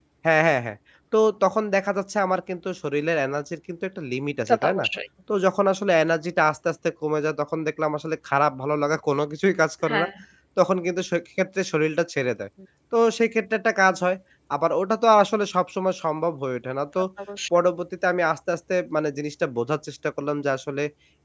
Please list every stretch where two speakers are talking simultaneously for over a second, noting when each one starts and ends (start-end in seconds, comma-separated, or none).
none